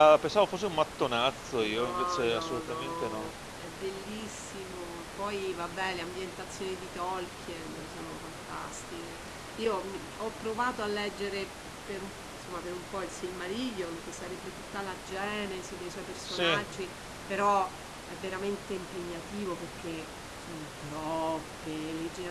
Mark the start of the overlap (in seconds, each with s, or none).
1.6 s